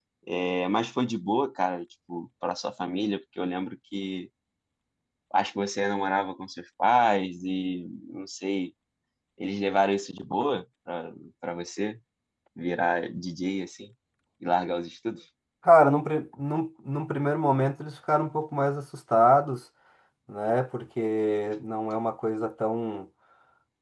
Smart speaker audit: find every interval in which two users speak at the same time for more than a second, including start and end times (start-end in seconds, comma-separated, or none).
none